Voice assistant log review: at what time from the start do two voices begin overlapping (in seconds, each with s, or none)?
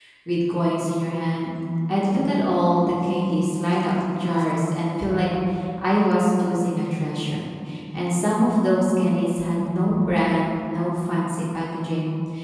none